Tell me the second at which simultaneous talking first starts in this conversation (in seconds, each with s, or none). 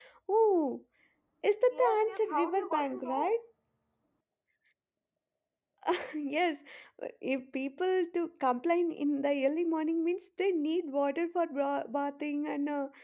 1.7 s